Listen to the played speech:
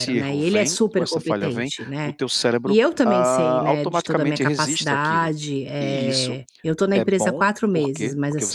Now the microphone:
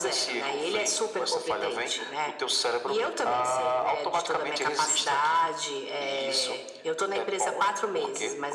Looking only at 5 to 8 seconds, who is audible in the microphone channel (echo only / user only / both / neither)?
echo only